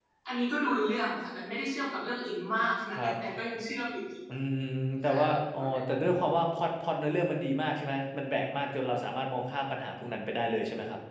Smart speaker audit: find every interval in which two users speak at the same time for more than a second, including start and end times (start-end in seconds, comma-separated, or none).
none